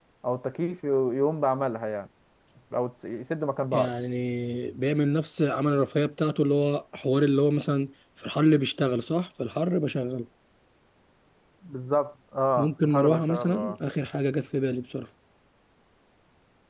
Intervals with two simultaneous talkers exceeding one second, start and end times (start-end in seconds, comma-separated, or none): 12.6-13.8